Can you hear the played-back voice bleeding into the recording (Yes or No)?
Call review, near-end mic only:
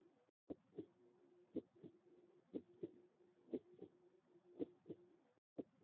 No